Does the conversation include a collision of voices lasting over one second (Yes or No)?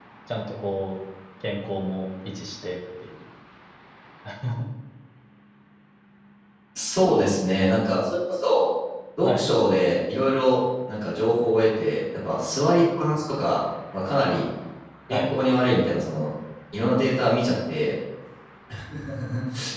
No